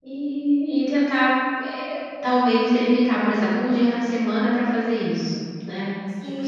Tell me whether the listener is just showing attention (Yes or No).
No